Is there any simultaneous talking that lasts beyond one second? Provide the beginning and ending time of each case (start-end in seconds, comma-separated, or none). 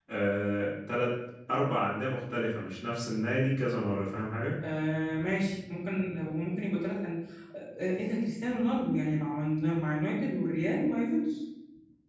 none